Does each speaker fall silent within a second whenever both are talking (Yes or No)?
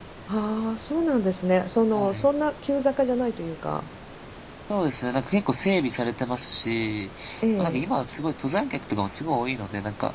Yes